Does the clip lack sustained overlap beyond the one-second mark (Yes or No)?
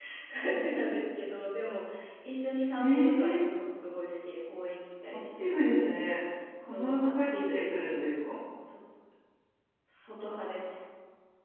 No